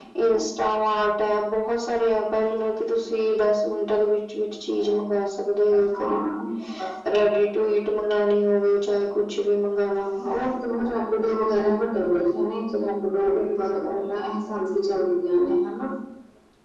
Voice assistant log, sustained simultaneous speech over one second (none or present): none